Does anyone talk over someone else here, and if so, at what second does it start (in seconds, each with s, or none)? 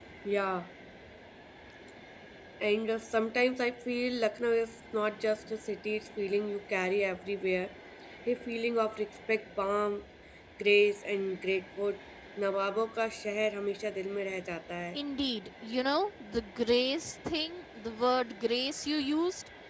none